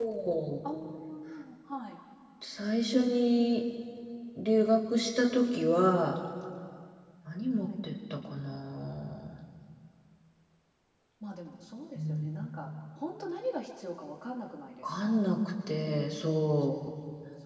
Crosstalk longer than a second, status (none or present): none